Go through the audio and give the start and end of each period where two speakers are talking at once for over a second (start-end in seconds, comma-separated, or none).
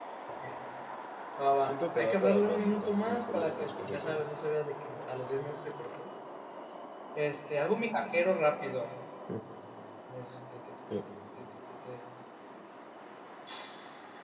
1.6-4.2